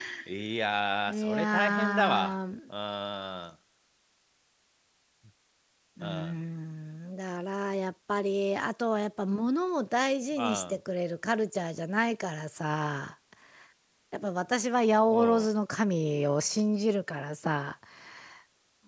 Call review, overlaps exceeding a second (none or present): present